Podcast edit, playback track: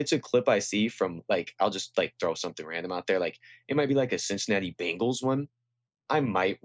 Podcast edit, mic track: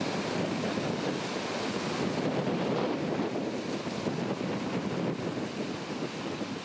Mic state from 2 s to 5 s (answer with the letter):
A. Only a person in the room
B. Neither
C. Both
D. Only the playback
B